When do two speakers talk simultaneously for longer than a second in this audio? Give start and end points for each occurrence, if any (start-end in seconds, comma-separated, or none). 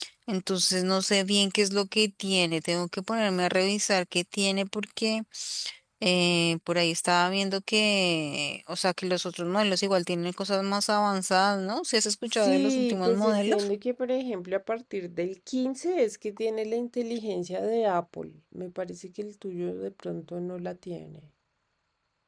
12.3-13.7